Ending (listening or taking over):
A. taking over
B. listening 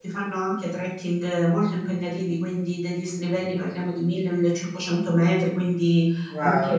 B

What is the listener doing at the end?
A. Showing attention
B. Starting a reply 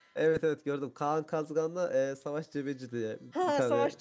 B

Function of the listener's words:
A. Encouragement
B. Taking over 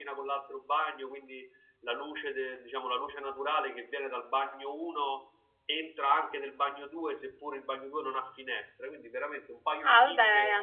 B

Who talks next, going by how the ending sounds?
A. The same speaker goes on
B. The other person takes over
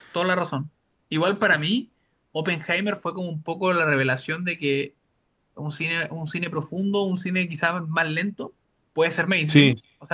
A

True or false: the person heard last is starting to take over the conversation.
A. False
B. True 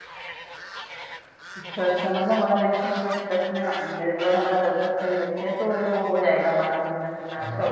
B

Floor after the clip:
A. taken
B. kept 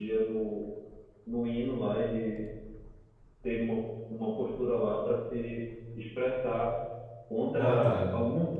B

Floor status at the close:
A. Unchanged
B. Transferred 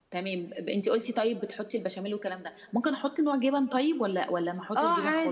B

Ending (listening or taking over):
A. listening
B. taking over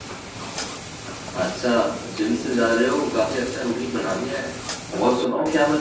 A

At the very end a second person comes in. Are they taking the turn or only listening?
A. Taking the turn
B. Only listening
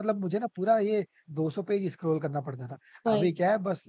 B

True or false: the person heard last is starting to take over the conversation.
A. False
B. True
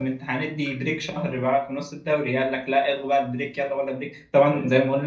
A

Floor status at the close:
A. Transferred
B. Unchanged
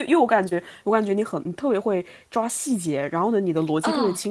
B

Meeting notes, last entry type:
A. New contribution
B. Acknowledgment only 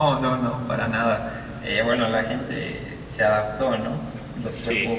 B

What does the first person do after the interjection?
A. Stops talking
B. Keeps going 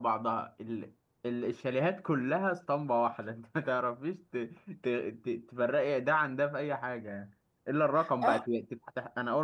B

